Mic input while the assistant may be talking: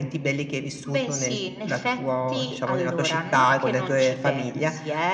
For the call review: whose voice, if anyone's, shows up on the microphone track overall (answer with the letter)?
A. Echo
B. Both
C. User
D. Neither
A